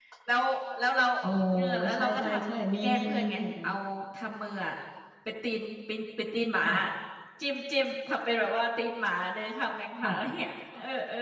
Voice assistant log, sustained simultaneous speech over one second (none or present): present